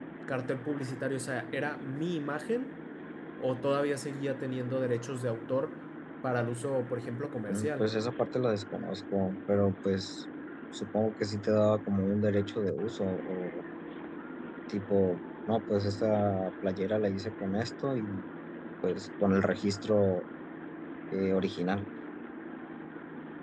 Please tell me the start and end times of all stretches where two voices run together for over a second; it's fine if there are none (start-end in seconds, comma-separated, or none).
none